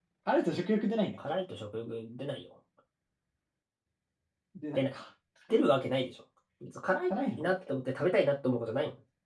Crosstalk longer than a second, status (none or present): none